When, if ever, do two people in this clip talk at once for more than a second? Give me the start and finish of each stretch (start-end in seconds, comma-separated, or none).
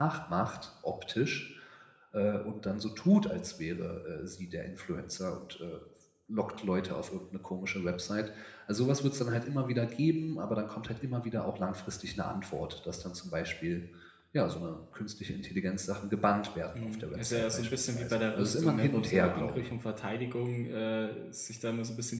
16.8-19.7